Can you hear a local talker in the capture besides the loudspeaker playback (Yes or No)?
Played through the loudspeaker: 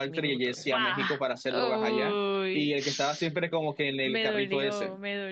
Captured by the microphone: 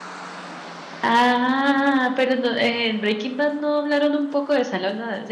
Yes